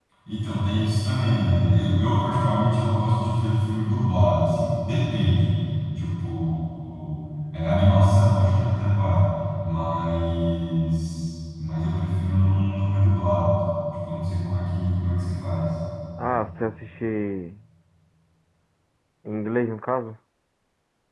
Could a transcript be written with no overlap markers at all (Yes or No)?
Yes